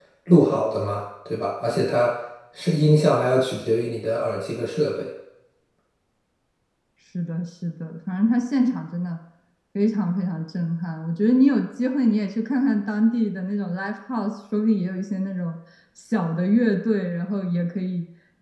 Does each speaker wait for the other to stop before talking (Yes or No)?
Yes